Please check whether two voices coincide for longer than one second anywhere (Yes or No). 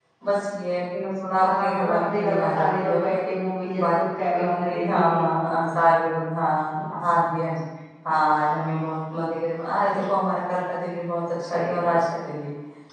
Yes